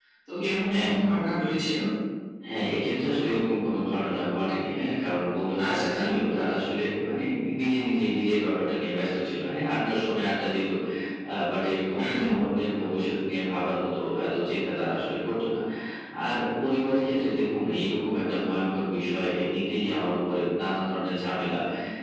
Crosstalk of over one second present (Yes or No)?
No